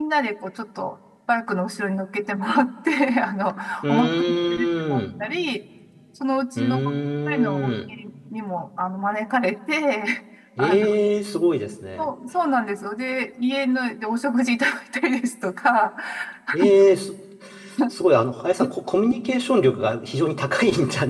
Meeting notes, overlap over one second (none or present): present